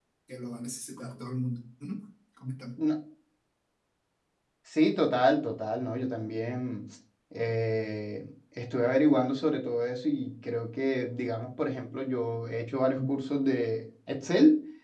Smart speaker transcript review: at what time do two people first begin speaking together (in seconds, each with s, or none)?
none